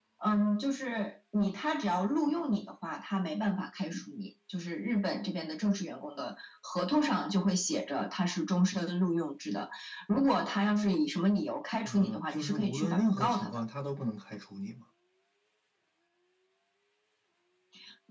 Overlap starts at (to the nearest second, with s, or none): 12 s